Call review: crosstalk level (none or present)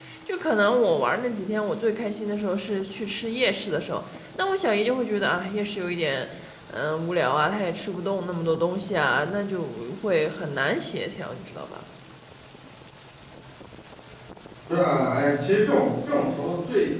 none